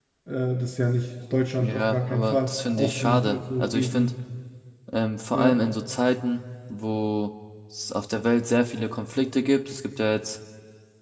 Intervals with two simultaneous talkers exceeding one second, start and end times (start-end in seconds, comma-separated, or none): 1.6-4.1